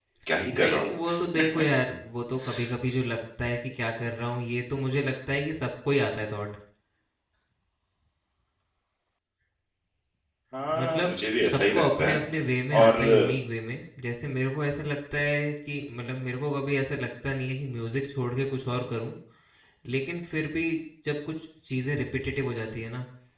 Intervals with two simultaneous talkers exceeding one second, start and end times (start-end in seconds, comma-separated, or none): 10.8-12.2